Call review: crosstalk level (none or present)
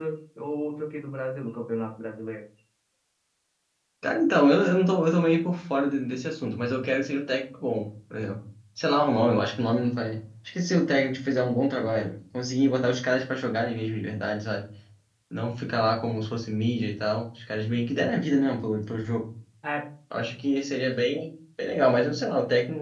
none